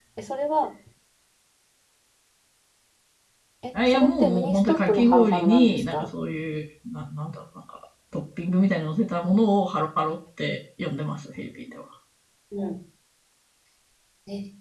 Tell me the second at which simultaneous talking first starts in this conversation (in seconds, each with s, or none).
3.7 s